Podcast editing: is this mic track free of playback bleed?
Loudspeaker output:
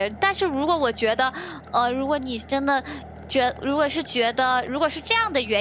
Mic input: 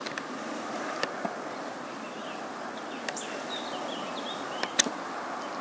Yes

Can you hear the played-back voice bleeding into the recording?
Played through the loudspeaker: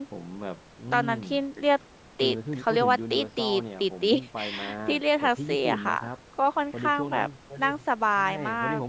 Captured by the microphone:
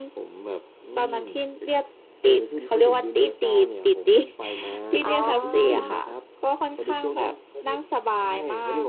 Yes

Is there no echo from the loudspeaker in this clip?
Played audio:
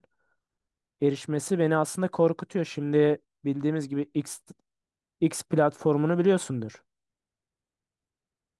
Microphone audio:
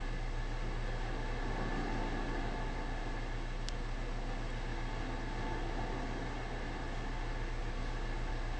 Yes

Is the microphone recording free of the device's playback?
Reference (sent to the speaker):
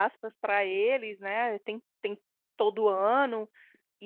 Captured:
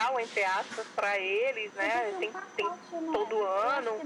No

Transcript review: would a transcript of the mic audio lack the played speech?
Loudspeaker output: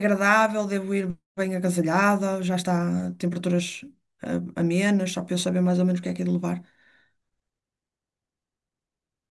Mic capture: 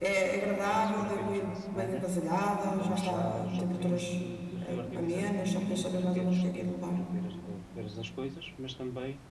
No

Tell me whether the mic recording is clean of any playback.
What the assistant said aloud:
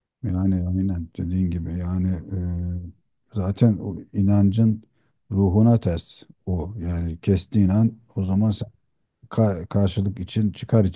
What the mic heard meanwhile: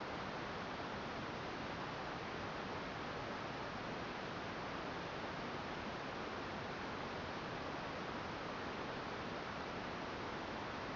Yes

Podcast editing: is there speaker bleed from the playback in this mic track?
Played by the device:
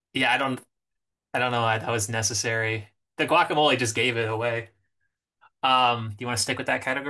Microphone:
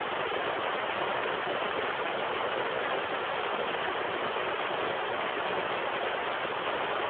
No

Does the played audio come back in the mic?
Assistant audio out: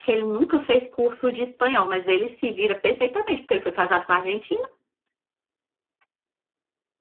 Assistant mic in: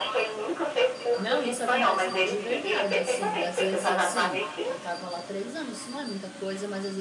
Yes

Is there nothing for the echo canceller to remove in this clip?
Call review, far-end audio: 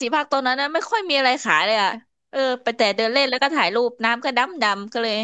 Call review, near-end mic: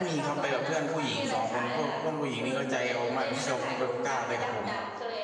No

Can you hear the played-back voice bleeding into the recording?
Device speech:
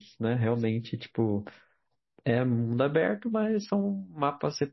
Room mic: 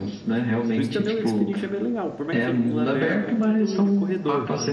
Yes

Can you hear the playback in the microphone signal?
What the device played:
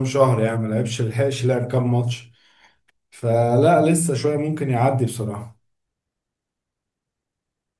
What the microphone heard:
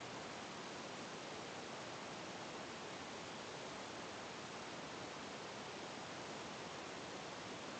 No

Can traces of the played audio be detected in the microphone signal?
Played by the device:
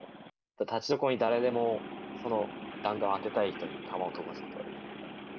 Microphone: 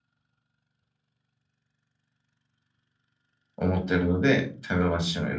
No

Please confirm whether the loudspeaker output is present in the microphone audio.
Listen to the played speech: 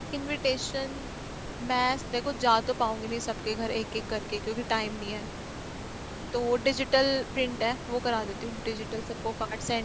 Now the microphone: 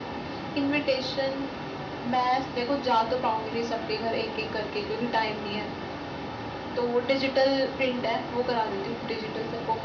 Yes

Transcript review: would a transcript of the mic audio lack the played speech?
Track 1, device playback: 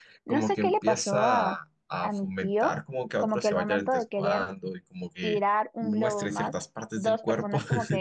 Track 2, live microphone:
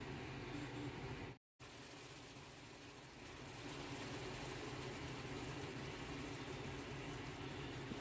Yes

